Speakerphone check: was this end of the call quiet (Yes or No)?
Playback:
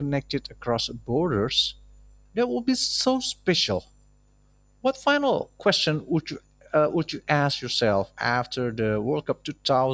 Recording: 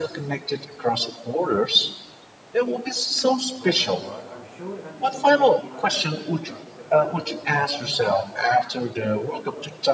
No